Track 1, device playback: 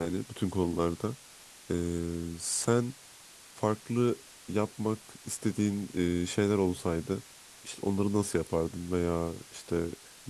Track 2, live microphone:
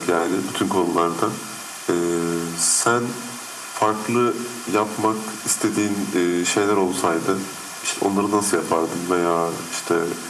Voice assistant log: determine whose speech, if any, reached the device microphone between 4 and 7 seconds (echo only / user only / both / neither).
echo only